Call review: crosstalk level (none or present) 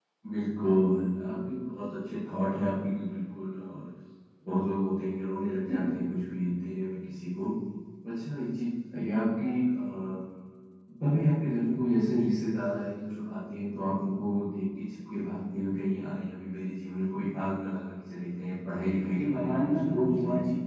present